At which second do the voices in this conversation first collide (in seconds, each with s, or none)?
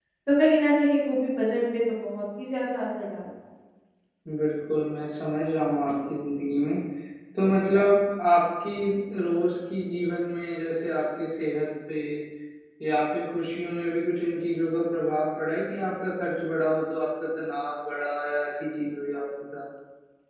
none